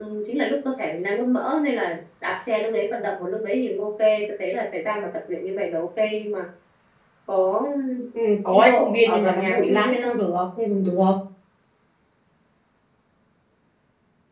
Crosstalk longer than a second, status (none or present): present